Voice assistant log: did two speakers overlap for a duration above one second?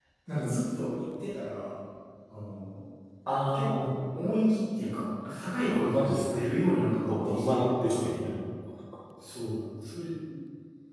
Yes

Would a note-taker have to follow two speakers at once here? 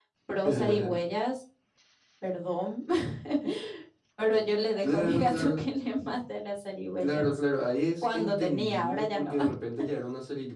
Yes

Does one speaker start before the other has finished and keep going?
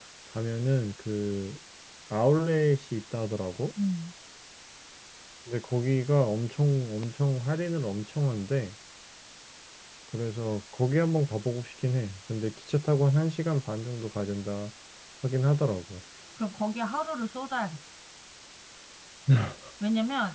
No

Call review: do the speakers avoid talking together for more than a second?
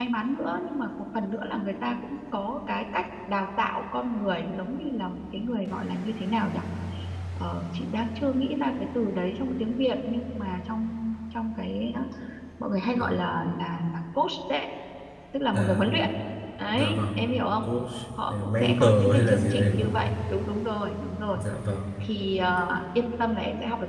No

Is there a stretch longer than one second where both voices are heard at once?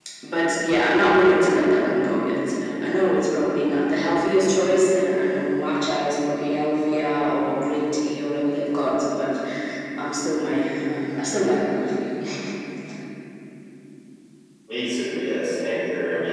No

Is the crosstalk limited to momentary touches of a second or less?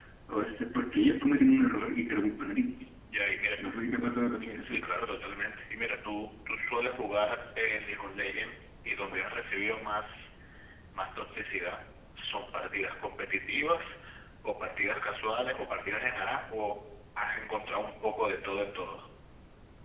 Yes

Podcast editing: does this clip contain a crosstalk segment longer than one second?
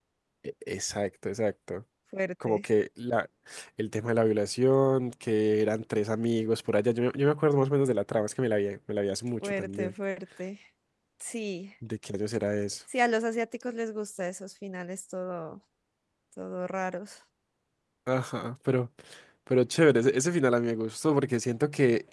No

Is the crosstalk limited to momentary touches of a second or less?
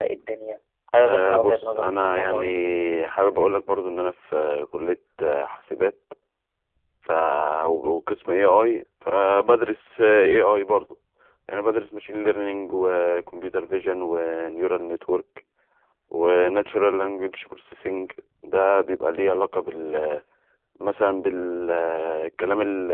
No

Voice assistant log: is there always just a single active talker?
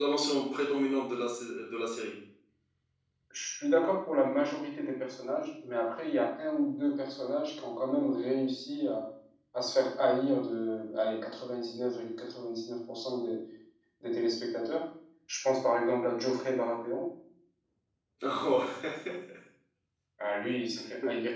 Yes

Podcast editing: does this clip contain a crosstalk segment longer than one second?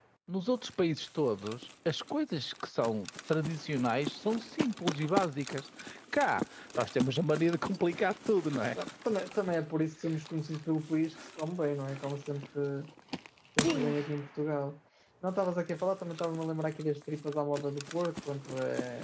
No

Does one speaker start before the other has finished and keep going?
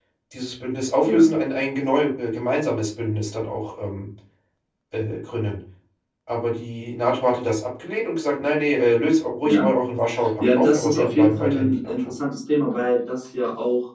Yes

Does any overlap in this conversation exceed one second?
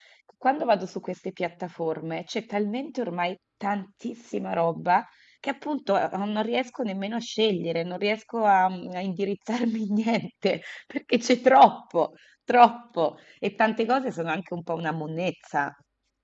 No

